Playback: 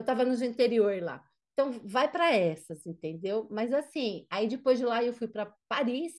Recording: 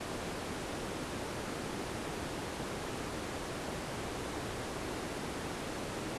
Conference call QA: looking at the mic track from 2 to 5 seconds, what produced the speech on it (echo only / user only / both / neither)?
neither